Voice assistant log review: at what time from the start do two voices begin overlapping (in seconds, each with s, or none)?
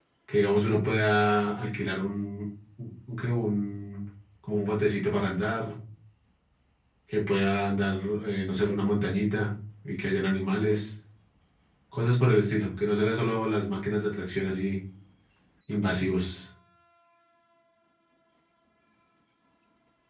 none